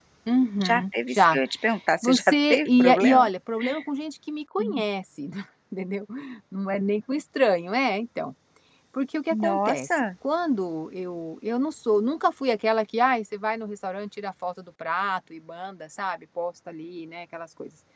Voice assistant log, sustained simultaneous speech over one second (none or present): present